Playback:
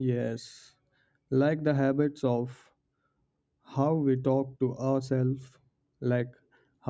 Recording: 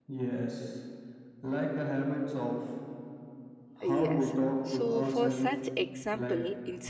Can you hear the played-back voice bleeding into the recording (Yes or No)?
Yes